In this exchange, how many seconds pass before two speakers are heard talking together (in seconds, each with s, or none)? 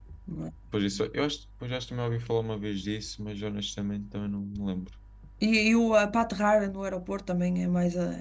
none